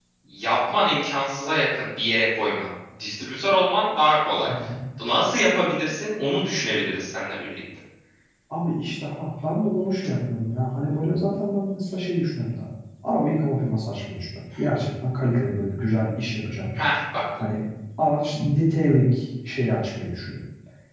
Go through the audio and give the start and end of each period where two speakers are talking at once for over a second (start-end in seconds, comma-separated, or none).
none